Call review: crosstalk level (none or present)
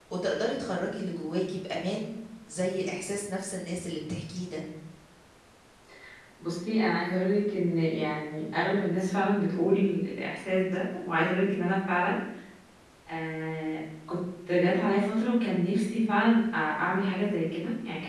none